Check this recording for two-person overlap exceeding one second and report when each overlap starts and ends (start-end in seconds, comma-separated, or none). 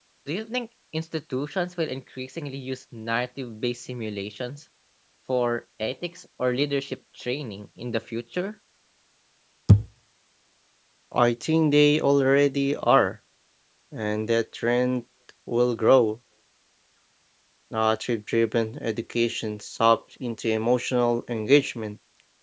none